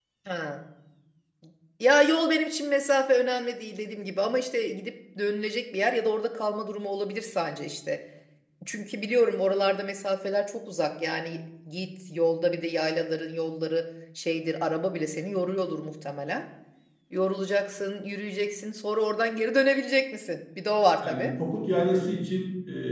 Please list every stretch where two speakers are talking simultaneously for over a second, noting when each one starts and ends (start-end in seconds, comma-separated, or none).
none